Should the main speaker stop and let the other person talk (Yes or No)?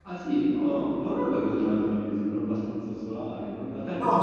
Yes